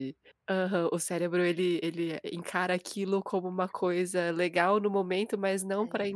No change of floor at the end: Yes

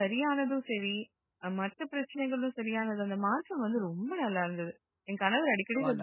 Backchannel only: Yes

